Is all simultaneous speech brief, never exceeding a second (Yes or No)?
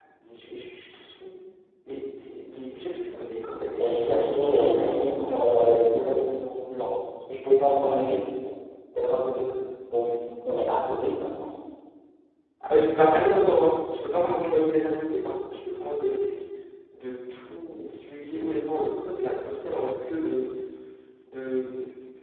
No